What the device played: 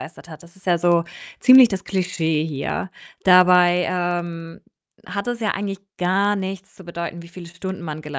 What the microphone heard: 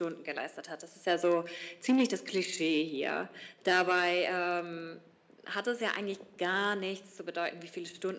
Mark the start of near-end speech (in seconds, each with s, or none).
none